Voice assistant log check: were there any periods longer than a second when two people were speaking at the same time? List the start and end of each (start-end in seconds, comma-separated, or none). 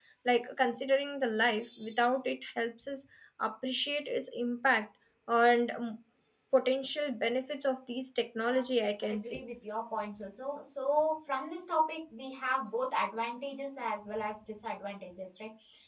none